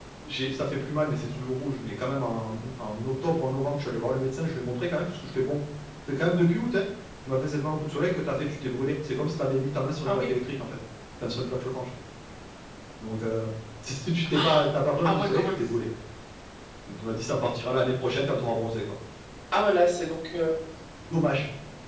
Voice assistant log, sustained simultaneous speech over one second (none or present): none